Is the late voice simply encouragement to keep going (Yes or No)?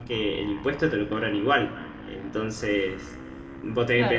No